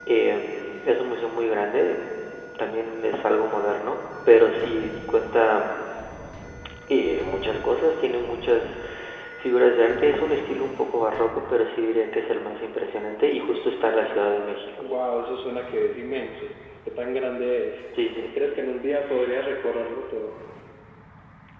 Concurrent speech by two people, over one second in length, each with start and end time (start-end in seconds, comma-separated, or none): none